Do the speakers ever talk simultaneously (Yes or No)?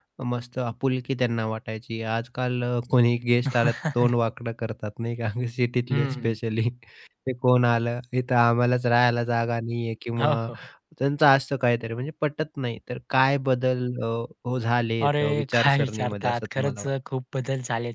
Yes